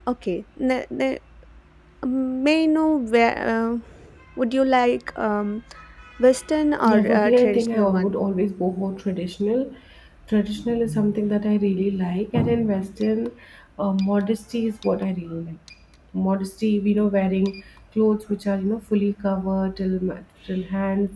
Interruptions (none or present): present